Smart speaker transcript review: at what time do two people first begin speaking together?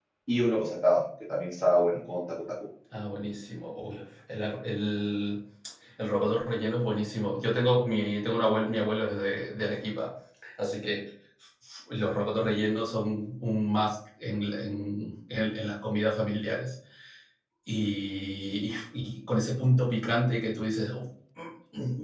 none

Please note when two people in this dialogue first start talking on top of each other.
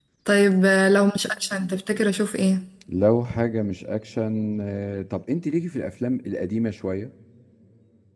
none

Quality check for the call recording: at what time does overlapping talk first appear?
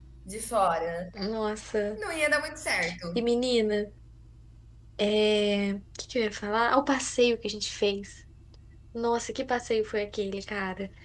none

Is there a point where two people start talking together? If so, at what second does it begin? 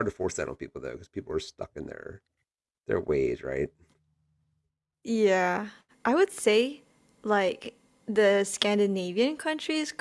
none

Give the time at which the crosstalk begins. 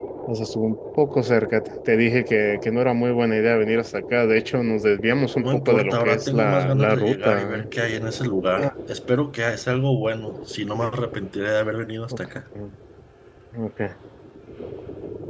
5.4 s

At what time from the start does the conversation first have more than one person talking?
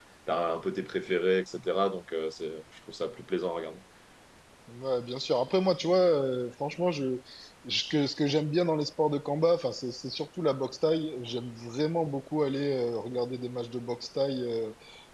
none

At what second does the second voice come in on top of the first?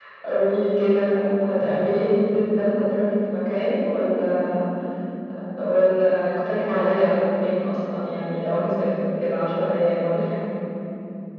none

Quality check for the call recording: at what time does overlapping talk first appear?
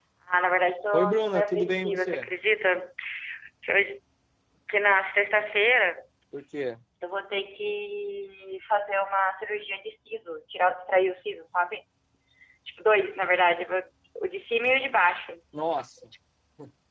0.9 s

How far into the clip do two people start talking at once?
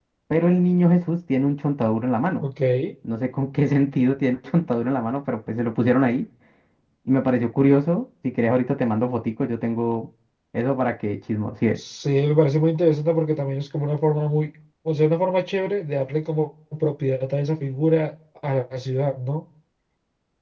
none

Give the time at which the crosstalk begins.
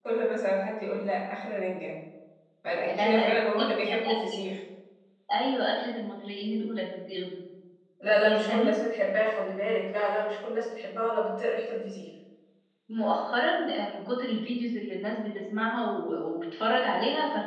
2.9 s

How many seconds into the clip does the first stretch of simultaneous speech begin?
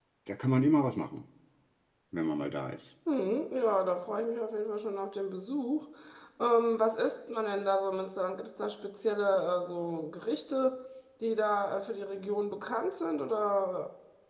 none

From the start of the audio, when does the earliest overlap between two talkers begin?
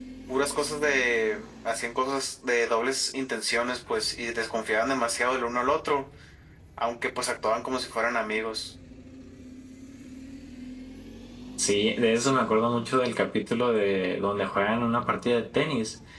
none

